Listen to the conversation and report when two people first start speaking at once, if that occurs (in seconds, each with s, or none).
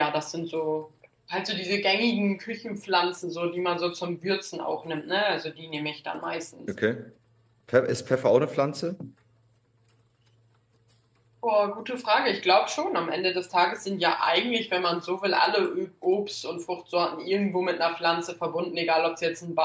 none